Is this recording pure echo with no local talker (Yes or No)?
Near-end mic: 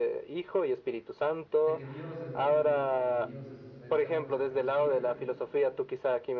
No